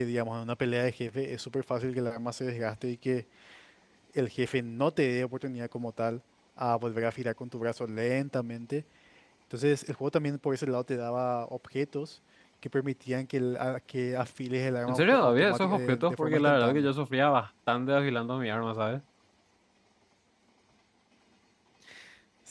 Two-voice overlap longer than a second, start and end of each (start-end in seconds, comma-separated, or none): 14.9-16.9